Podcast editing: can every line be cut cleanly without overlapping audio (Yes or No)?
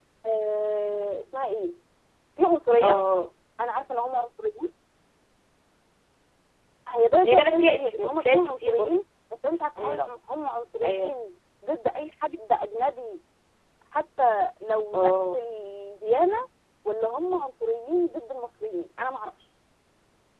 No